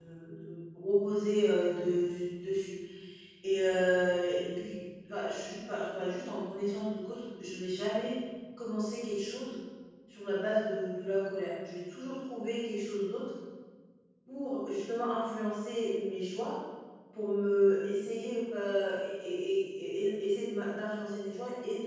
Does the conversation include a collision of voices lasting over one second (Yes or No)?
No